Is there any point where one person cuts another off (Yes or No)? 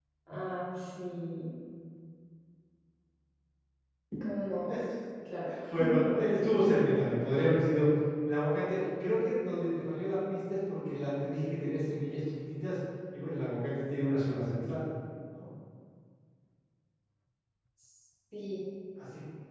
No